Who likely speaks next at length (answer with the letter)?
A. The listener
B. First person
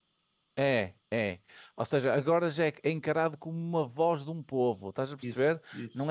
B